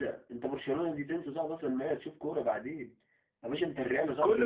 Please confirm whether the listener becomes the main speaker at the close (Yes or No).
Yes